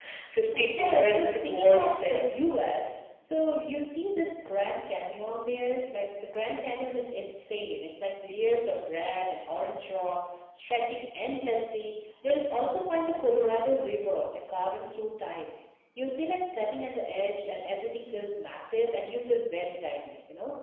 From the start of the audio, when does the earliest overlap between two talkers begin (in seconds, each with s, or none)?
0.6 s